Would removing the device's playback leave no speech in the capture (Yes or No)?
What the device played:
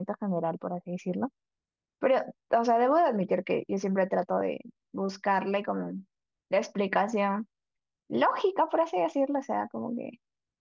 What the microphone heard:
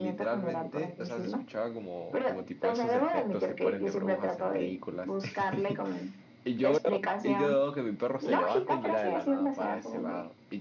No